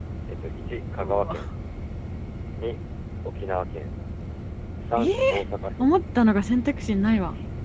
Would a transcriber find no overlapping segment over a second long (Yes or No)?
Yes